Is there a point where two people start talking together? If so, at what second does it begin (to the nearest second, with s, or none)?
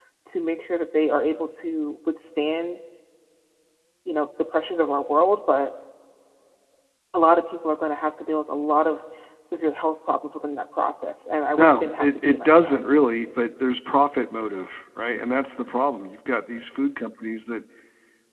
12 s